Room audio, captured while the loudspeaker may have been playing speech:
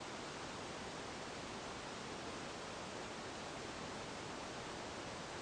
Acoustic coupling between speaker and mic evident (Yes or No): No